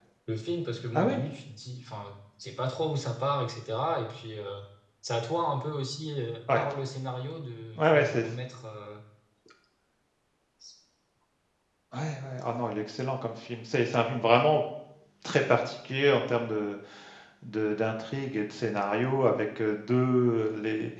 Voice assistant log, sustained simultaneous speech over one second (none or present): none